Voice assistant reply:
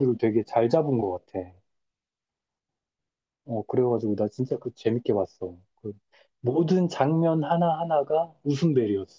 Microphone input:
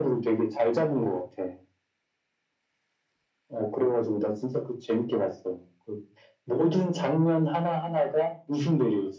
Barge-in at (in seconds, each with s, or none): none